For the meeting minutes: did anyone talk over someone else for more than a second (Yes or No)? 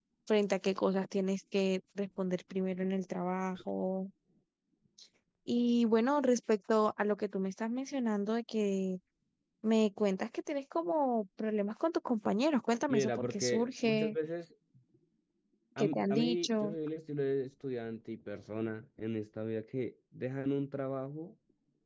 Yes